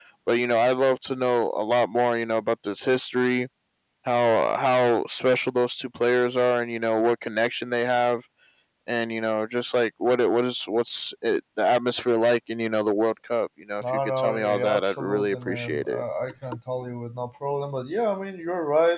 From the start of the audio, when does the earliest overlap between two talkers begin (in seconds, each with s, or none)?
13.8 s